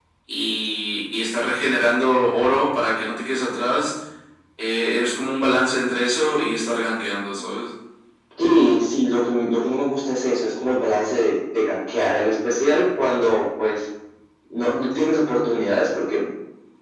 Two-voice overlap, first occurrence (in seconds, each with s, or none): none